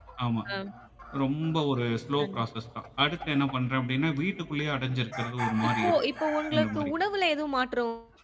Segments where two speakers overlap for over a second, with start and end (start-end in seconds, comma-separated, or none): none